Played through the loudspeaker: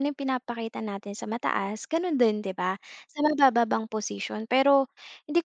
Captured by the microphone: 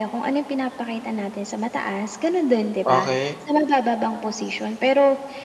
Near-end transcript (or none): Okey.